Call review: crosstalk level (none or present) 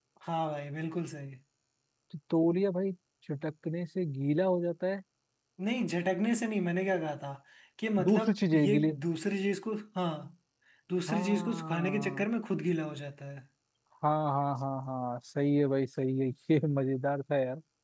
present